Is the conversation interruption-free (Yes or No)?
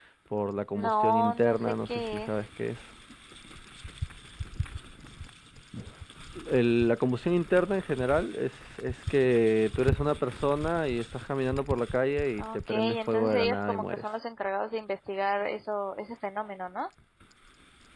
No